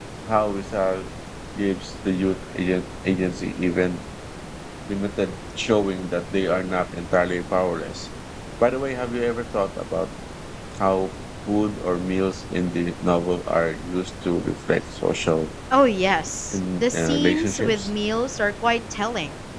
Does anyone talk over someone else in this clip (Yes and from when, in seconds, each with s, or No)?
Yes, from 16.5 s